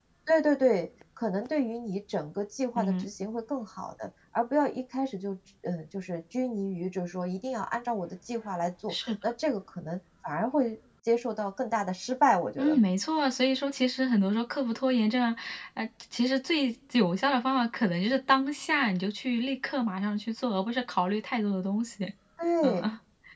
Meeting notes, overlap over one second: none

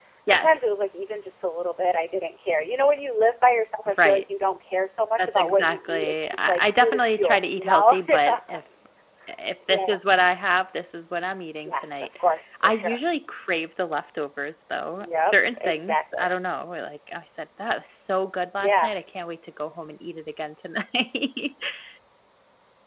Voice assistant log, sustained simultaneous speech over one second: present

